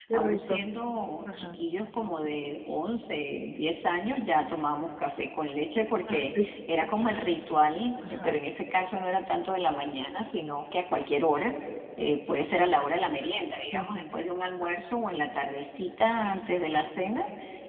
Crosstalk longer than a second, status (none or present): none